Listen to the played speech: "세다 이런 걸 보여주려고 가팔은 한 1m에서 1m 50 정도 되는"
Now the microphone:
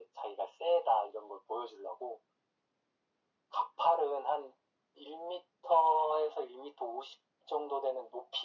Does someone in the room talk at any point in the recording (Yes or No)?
No